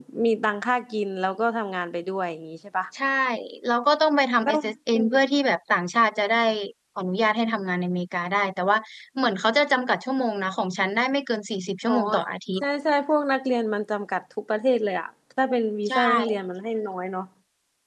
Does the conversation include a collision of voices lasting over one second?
No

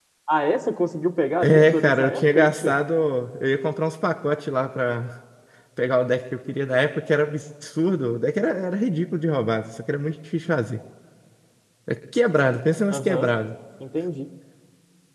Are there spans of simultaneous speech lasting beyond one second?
Yes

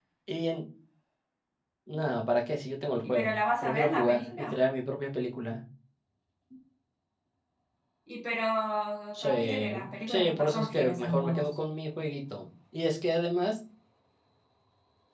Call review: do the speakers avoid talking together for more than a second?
No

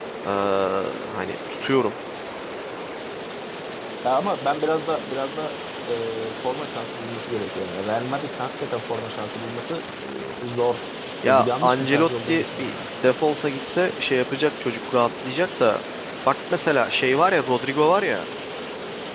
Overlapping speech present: Yes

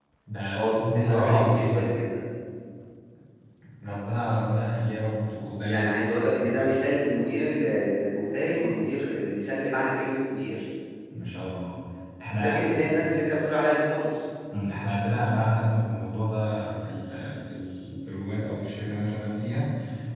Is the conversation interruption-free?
No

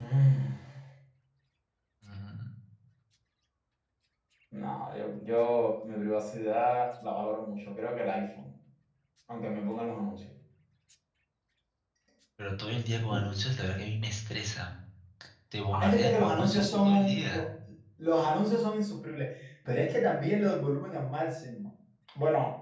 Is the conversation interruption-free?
No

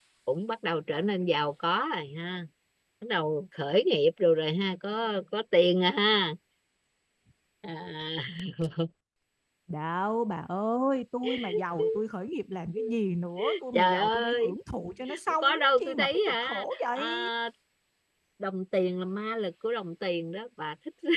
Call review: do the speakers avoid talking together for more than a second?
No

